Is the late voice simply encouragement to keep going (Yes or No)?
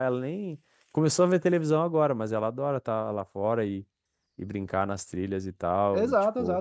No